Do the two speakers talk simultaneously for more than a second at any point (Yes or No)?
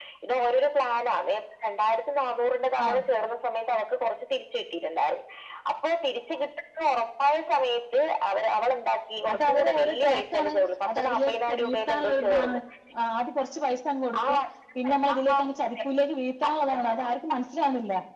Yes